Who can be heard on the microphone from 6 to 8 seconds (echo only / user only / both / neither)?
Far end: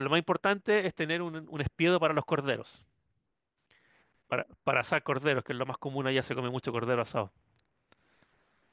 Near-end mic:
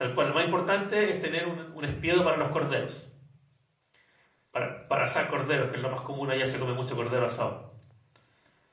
echo only